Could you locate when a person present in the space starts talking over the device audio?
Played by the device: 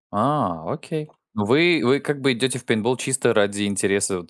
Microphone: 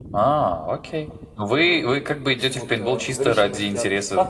1.5 s

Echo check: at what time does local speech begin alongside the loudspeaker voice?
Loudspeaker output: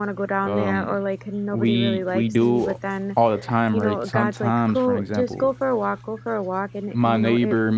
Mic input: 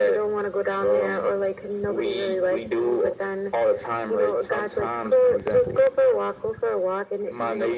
none

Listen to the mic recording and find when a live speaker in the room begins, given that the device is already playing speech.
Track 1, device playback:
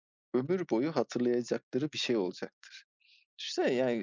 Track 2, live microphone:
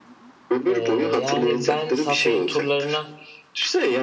0.7 s

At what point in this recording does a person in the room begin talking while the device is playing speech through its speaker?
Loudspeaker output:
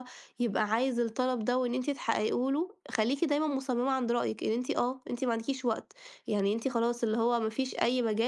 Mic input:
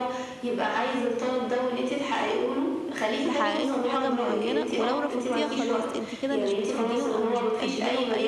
3.2 s

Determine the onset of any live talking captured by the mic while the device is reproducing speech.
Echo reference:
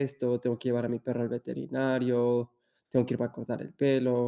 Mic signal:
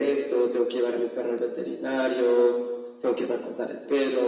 none

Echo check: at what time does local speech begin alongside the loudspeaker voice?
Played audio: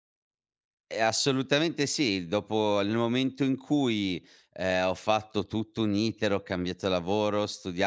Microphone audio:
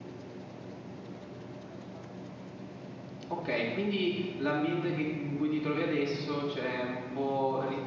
3.2 s

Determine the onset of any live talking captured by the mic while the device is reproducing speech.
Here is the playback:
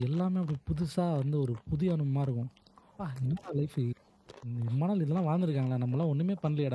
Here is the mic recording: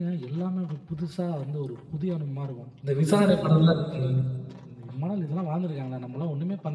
2.8 s

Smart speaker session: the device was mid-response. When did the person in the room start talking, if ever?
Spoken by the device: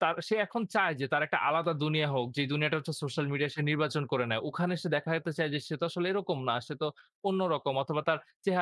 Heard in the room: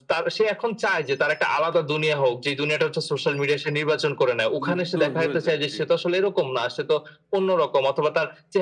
4.6 s

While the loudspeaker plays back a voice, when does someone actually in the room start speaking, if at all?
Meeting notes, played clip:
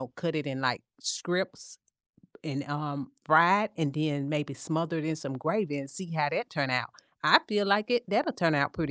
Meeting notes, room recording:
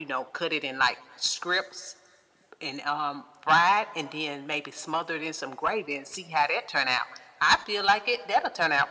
none

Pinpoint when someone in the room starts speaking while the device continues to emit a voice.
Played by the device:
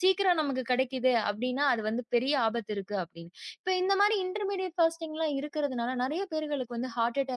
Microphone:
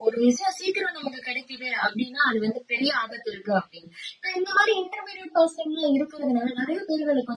none

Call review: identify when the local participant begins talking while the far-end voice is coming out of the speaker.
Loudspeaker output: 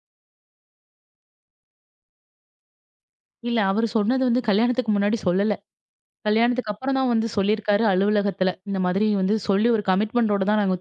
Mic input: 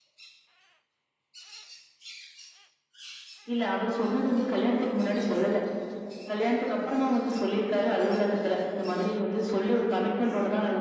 none

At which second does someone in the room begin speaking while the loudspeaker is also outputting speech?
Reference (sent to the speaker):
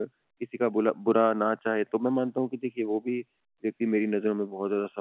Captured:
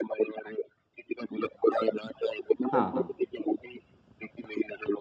2.7 s

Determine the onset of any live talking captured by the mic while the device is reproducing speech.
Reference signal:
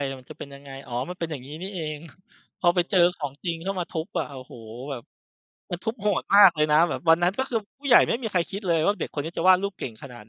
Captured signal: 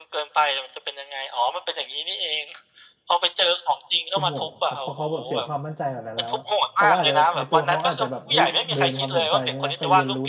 4.1 s

